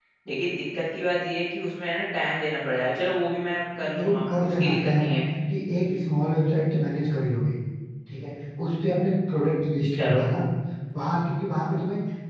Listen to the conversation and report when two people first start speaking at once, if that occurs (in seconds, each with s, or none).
3.8 s